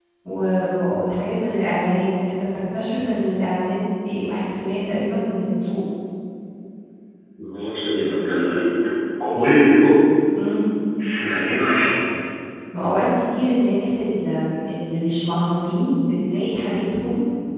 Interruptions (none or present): none